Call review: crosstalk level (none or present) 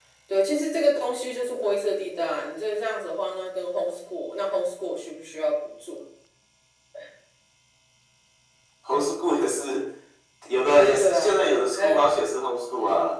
present